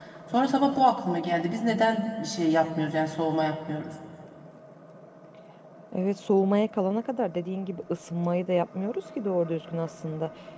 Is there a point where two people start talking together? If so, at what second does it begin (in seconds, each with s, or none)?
none